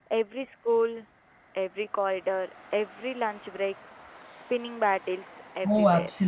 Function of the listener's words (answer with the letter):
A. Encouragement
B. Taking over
B